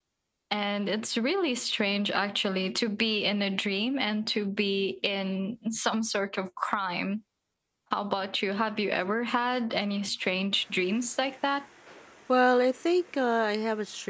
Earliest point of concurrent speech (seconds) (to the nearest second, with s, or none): none